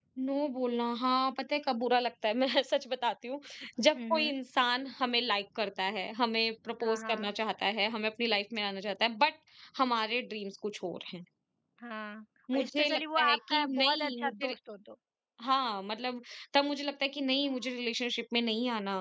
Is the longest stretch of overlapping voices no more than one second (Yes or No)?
No